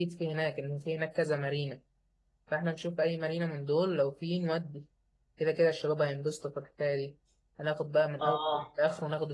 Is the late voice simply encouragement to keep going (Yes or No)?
Yes